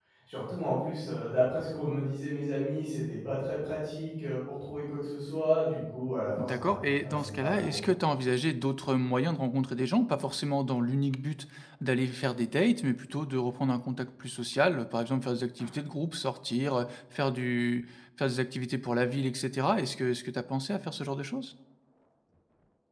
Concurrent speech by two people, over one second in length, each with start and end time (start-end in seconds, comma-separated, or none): 6.4-7.8